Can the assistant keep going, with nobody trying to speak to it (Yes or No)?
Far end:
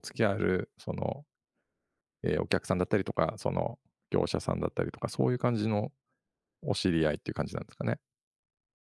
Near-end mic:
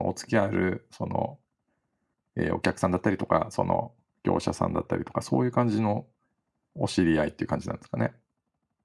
Yes